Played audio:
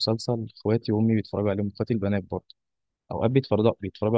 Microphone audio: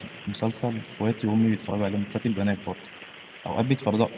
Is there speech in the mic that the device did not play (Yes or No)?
No